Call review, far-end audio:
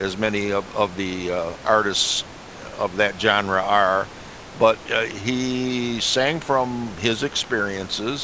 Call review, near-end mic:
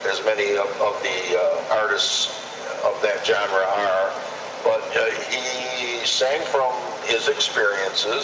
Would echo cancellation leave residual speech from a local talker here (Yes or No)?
No